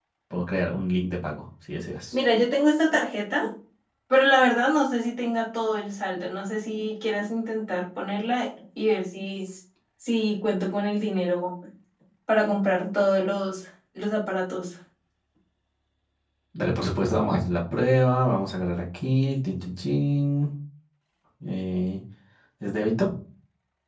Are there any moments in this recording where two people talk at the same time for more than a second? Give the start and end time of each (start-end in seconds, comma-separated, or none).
none